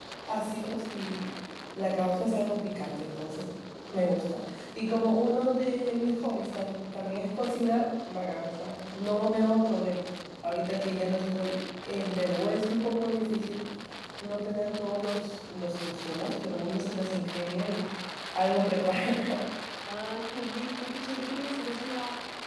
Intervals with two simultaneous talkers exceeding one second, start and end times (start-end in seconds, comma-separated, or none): none